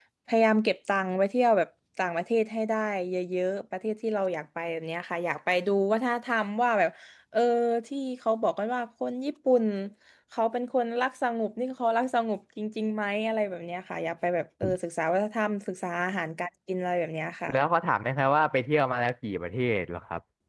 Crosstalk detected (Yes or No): No